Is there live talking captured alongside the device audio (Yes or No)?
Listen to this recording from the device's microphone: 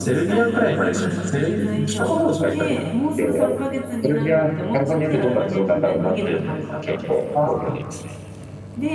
No